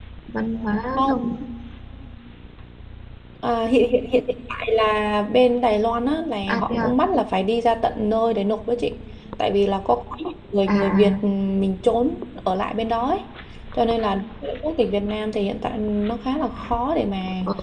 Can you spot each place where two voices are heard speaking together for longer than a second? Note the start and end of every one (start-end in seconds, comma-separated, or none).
none